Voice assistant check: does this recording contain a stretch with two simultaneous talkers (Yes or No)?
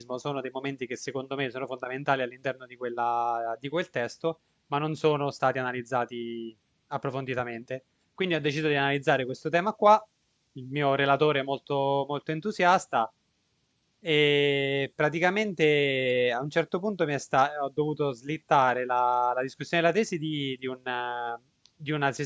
No